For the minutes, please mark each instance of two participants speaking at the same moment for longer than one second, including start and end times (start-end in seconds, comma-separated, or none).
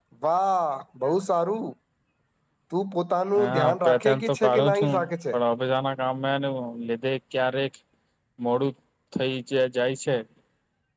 3.4-4.9